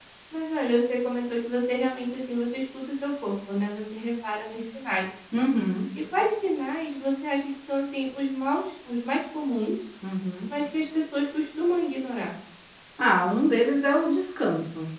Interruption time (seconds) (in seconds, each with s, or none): none